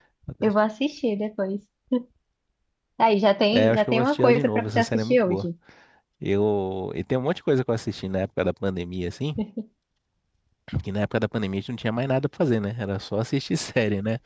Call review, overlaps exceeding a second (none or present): present